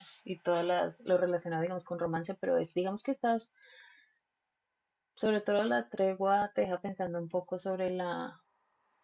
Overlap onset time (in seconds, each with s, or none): none